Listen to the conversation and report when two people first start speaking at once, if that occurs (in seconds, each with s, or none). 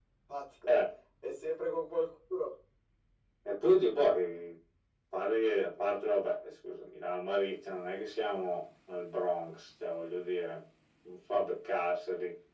none